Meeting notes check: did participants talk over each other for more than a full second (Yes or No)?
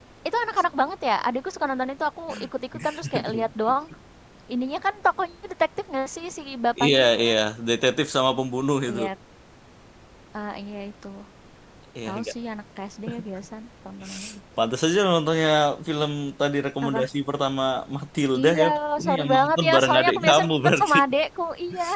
Yes